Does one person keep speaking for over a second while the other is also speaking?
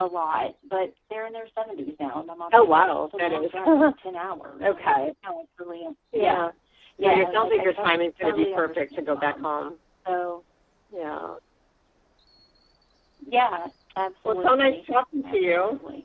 Yes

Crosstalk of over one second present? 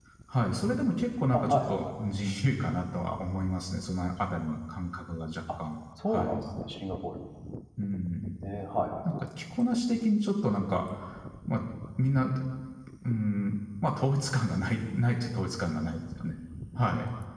No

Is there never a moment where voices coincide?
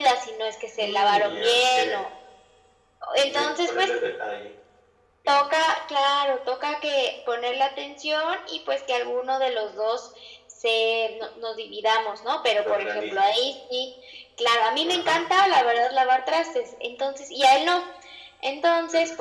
No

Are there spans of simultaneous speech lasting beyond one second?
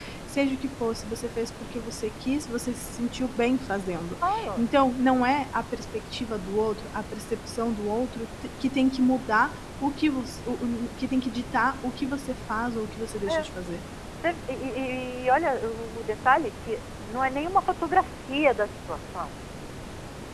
No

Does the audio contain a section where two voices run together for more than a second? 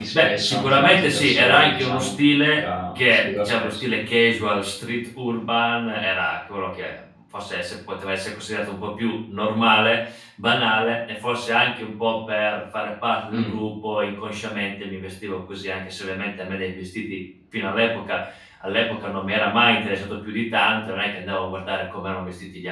Yes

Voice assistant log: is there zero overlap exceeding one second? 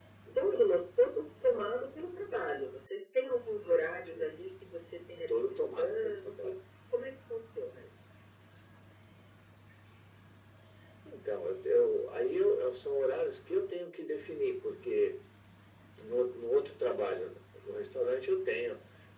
No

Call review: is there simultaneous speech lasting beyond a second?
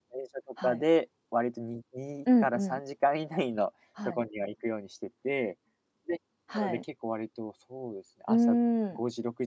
No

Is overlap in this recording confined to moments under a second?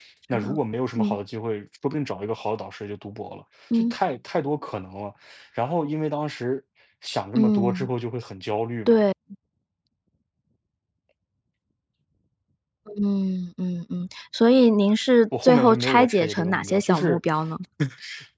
No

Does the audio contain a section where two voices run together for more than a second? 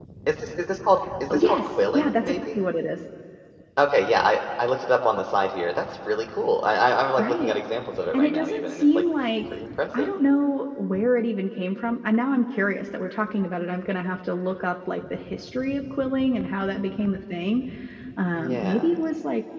Yes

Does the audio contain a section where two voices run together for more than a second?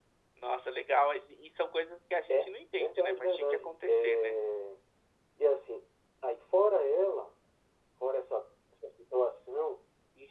Yes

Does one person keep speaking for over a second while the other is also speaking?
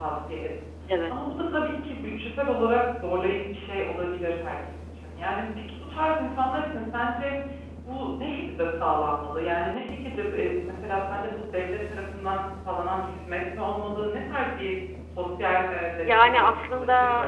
Yes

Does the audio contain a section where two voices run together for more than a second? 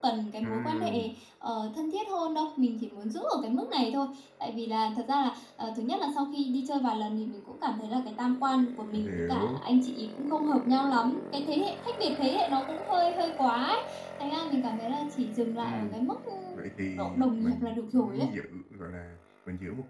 Yes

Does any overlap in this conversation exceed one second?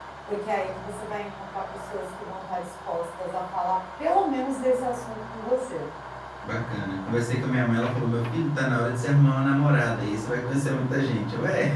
No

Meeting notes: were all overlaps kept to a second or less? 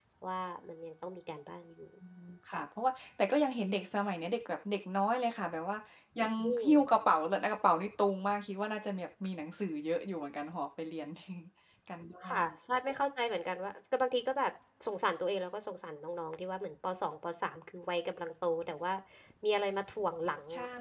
Yes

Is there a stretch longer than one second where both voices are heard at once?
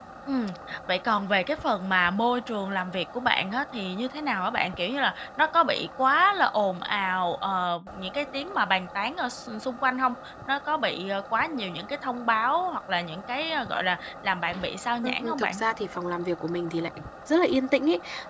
No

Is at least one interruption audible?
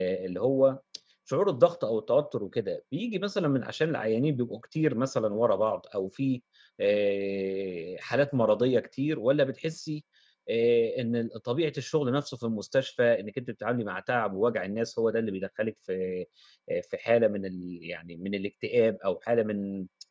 No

